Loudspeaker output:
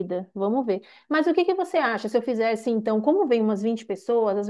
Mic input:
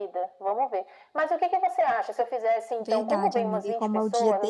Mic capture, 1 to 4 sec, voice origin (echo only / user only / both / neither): both